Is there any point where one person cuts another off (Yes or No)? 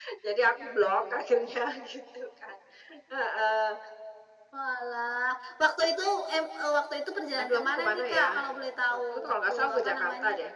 Yes